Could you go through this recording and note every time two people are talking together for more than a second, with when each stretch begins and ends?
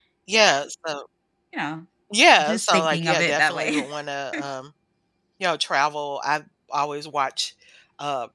2.4-3.8

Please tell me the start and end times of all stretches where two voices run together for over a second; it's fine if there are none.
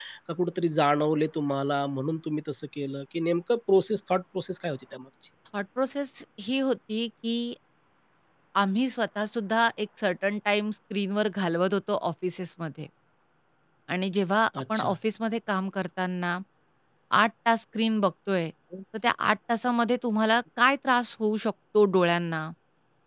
none

